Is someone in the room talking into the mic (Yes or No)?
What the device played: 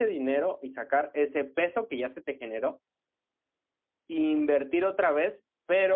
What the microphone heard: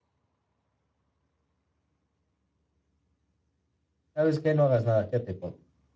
Yes